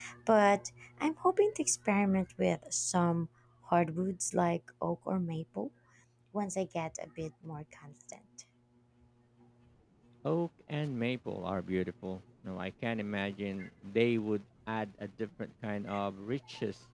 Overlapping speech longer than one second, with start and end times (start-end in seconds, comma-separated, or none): none